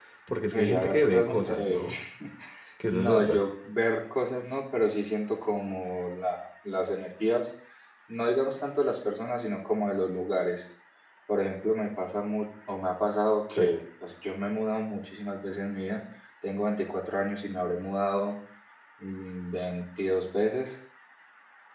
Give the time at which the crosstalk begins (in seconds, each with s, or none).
0.5 s